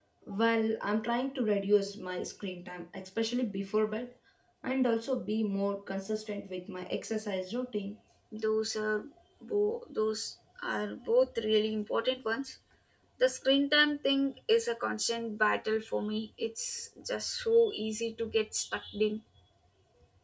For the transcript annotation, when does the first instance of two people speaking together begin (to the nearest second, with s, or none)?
none